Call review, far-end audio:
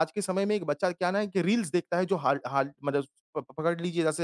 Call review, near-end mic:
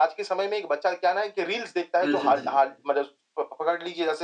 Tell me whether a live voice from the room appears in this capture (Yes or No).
Yes